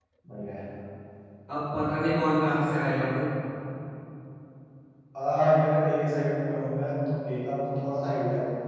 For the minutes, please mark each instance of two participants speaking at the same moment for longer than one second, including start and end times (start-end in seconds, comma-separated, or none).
none